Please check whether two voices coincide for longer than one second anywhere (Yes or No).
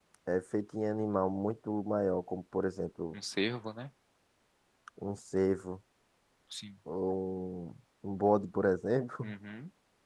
No